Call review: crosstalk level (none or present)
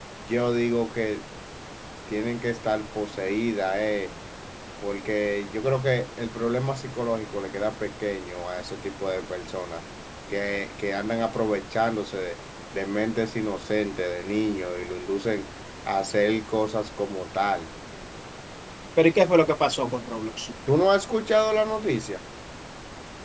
none